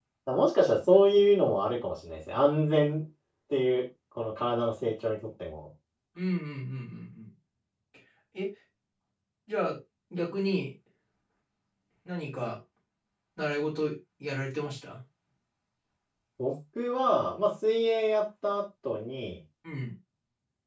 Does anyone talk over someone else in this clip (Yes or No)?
No